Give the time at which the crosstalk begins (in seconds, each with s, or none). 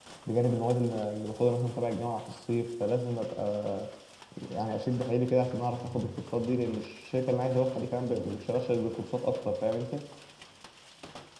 none